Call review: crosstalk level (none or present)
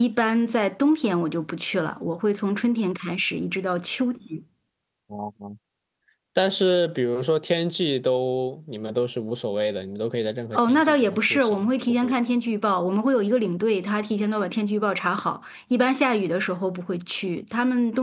present